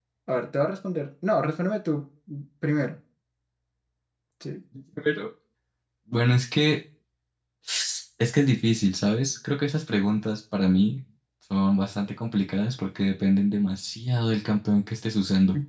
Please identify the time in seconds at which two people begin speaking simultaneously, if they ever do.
none

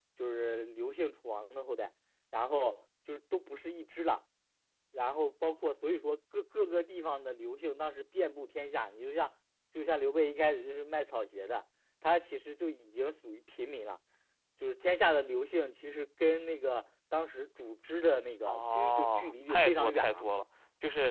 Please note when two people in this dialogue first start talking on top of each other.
18.5 s

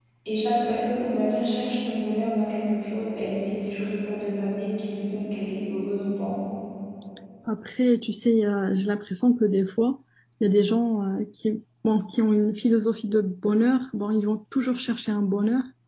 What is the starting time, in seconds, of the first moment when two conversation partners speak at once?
none

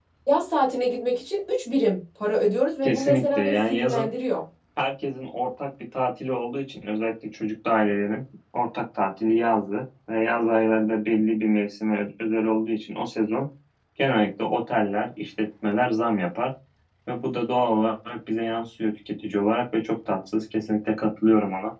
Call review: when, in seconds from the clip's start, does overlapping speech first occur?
2.8 s

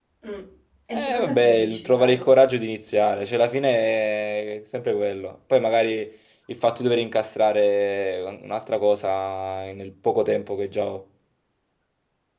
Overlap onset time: 0.9 s

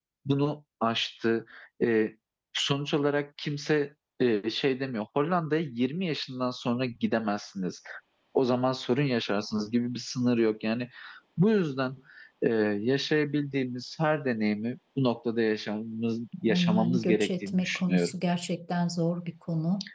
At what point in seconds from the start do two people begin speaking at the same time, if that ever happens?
16.5 s

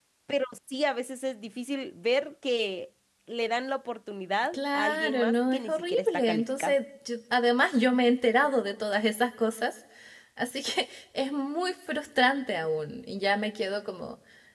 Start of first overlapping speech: 4.5 s

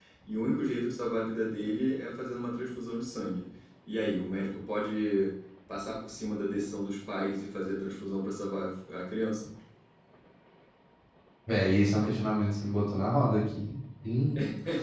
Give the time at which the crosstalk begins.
none

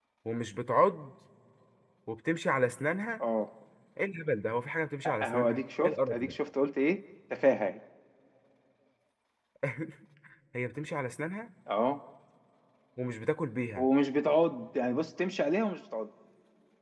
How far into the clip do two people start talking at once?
5.0 s

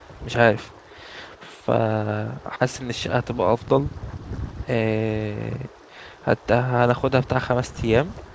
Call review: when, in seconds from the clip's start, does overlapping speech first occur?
none

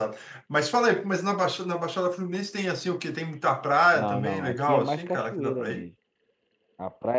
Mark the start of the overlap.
4.0 s

